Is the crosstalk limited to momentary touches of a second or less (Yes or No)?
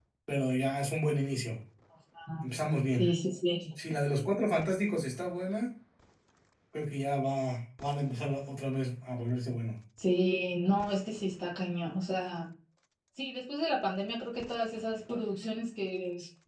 Yes